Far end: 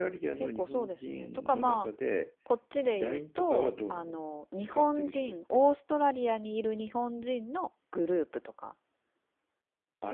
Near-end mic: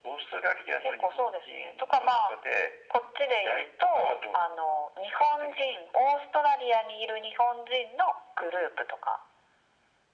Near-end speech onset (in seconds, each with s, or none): none